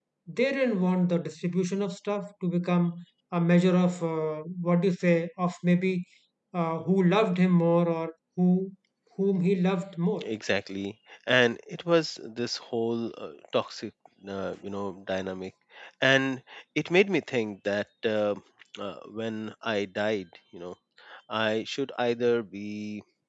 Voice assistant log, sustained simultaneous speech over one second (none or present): none